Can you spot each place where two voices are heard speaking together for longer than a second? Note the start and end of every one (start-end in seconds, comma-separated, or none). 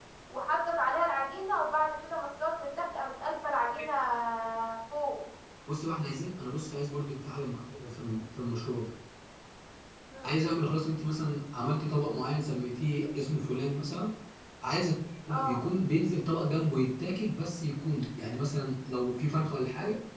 none